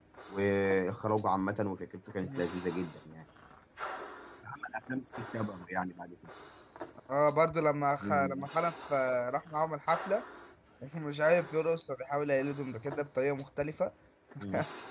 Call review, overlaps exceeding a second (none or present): none